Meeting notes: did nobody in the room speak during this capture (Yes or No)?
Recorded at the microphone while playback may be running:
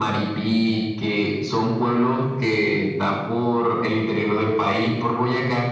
Yes